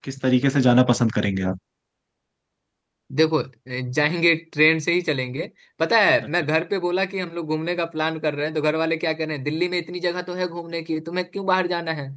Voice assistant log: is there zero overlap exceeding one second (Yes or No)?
Yes